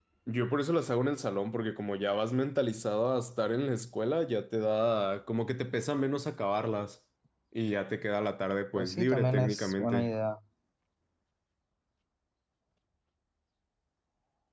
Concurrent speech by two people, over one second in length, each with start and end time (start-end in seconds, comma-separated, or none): 8.8-10.1